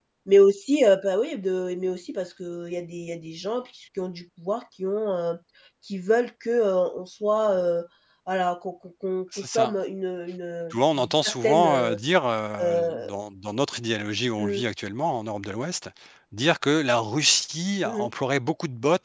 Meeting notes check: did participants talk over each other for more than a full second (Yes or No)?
Yes